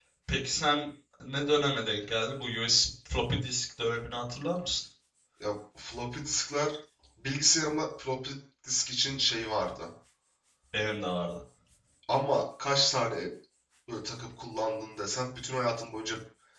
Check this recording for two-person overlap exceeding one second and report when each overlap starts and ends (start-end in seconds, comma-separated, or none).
none